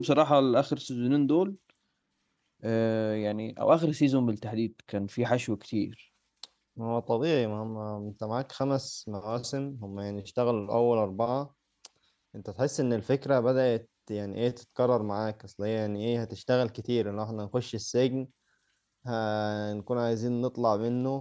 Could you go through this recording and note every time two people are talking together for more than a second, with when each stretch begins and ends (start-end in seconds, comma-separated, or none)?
none